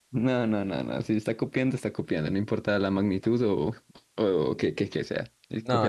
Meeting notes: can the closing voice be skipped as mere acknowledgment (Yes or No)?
No